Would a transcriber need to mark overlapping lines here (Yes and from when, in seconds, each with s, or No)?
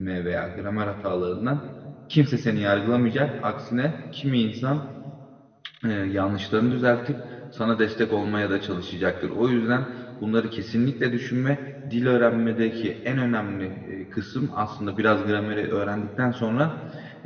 No